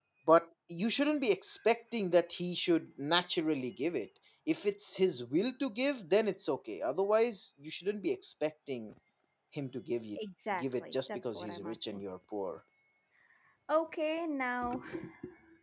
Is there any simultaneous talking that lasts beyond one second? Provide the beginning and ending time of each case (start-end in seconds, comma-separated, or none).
10.6-12.0